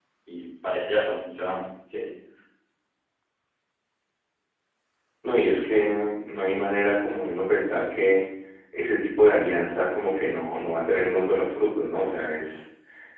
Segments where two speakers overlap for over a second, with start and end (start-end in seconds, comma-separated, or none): none